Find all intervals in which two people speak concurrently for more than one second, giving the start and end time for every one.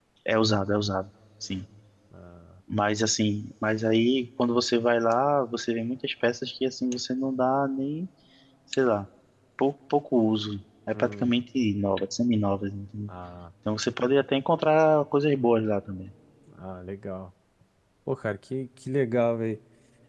none

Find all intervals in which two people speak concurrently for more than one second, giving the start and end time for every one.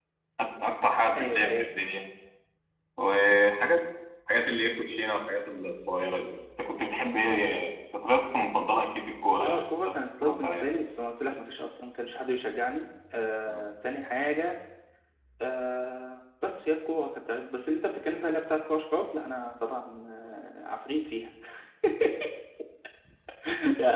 9.4-10.7

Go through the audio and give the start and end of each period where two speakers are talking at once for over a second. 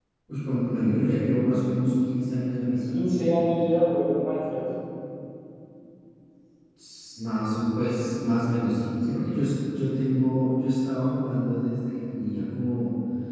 none

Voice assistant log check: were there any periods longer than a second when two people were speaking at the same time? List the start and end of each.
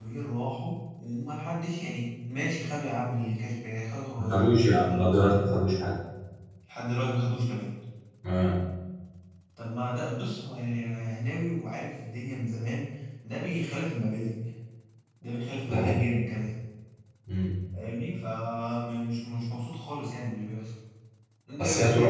4.2-5.4

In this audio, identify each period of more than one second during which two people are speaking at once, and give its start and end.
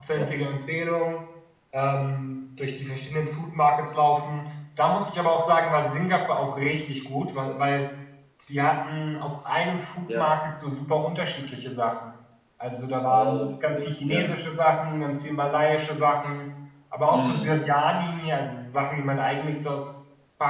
13.1-14.3

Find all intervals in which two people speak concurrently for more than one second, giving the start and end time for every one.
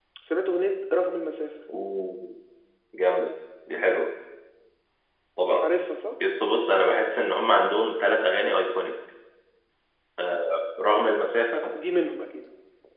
none

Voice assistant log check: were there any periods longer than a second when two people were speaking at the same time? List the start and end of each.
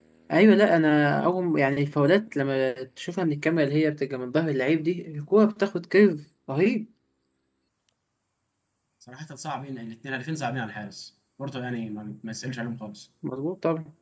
none

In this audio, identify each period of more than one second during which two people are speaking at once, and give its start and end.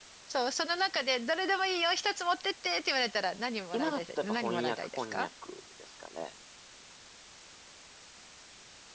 3.7-5.3

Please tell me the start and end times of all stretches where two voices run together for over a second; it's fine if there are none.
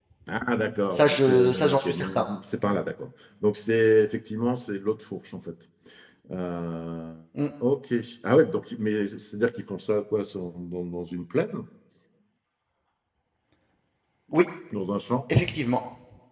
0.9-2.2

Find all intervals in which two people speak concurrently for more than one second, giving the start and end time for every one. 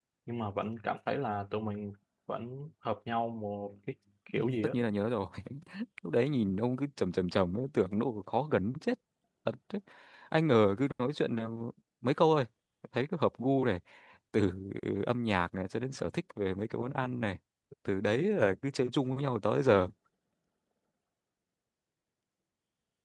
none

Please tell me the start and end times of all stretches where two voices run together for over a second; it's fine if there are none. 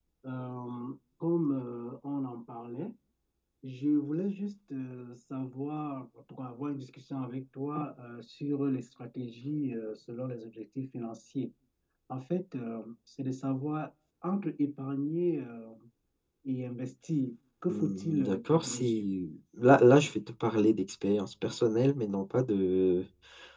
17.7-19.0

